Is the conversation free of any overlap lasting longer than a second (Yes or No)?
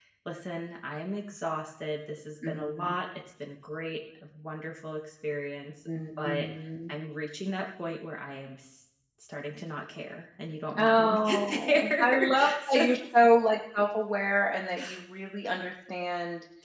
No